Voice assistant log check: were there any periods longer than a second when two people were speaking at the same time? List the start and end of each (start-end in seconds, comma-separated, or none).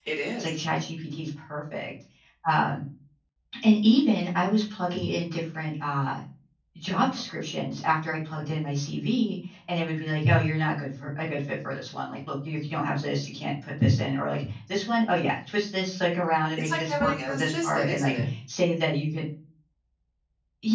16.6-18.2